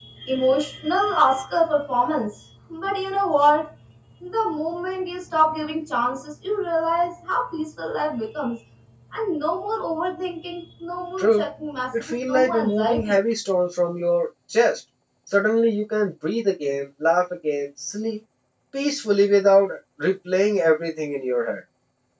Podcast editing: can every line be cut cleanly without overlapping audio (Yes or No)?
No